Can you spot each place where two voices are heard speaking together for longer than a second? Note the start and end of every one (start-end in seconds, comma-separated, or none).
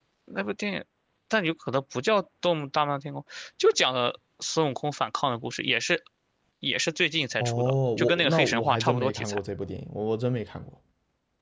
7.4-9.4